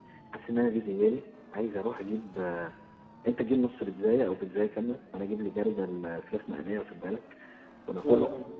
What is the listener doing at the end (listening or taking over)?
listening